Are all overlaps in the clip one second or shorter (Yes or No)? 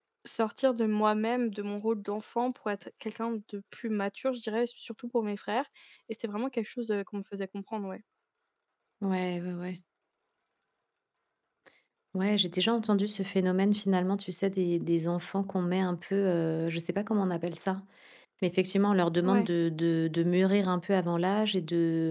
Yes